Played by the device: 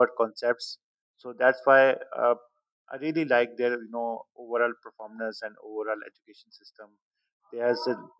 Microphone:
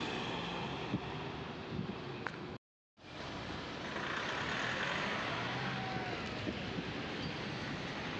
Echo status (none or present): none